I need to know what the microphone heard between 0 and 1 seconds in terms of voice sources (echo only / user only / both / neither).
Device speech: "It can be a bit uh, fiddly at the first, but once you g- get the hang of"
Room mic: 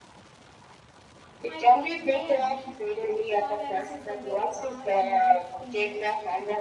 neither